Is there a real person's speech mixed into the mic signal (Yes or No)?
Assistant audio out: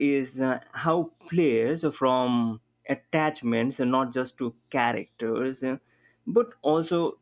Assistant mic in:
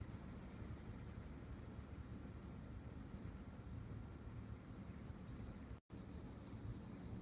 No